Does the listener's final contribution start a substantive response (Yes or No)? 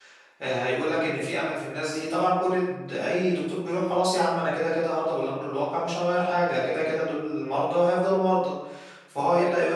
No